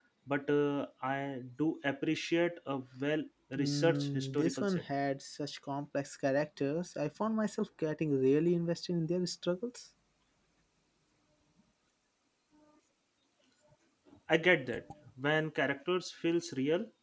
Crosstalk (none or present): present